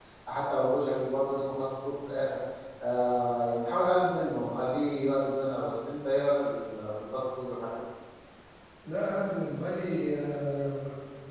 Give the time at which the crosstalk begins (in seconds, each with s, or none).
none